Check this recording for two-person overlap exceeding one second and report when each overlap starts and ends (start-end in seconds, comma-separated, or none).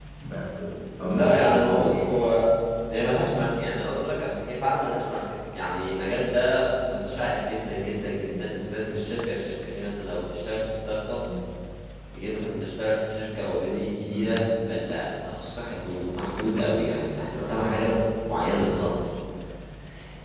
1.0-2.4